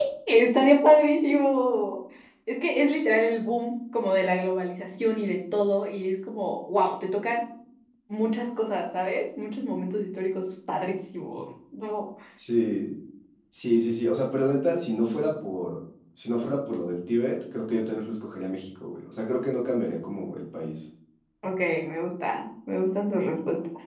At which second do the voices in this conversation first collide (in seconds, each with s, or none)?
none